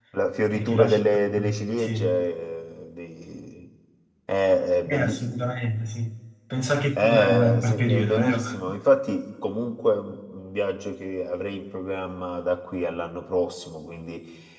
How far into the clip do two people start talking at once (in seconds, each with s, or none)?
0.5 s